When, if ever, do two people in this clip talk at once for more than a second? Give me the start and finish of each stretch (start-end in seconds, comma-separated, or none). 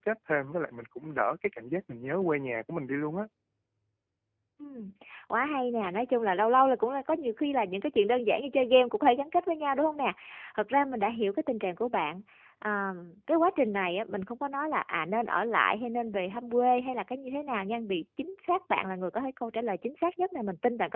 none